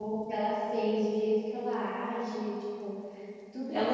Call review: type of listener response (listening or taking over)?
taking over